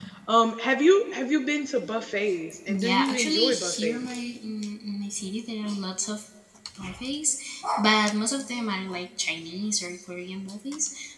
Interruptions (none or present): present